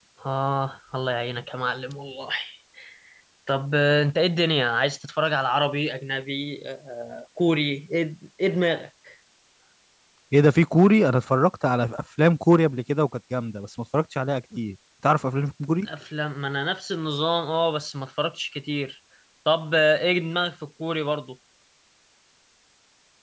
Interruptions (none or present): none